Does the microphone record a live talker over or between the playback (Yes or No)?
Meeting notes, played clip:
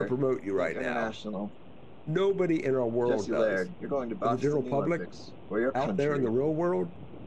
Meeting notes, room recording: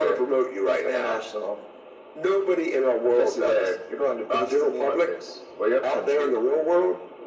No